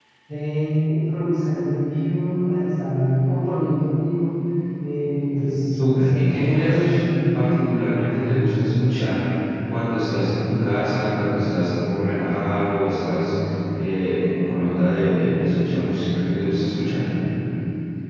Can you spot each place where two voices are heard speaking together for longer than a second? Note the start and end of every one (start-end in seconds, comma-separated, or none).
5.8-7.0